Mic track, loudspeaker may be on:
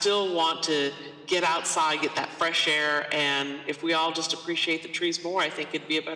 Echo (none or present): present